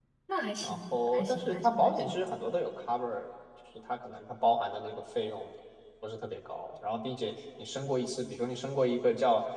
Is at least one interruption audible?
Yes, from 0.6 s

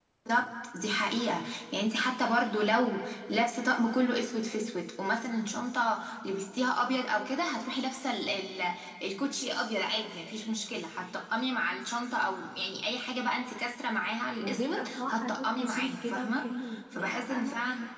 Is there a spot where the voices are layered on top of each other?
Yes, from 14.4 s

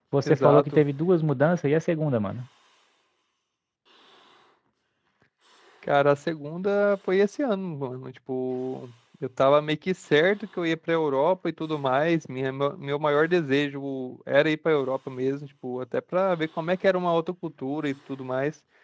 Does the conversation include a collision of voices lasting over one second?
No

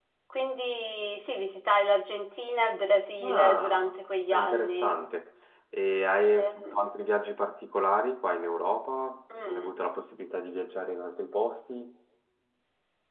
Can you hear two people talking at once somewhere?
Yes, from 3.2 s

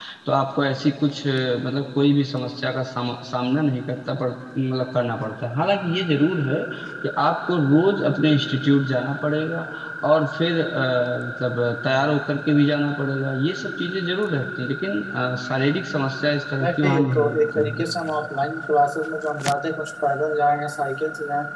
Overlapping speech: Yes, from 16.6 s

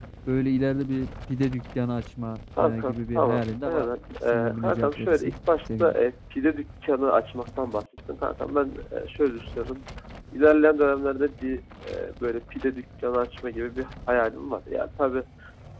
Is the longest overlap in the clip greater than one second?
Yes, from 2.6 s

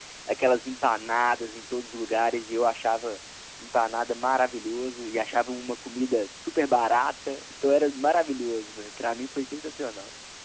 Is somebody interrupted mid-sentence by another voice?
No

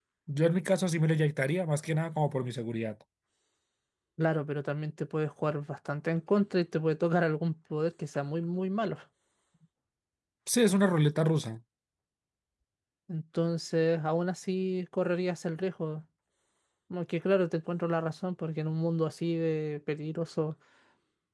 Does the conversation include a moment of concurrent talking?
No

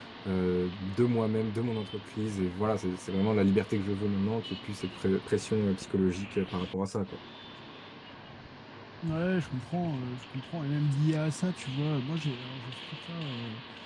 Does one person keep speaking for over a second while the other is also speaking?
No

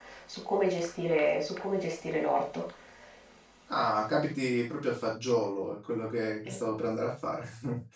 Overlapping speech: No

